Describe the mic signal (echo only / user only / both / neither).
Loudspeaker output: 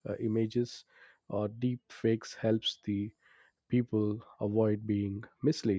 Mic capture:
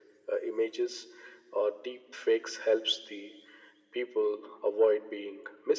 echo only